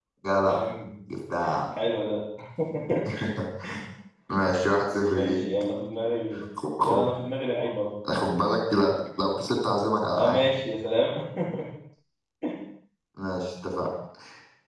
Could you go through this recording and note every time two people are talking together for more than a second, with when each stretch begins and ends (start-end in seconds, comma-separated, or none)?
none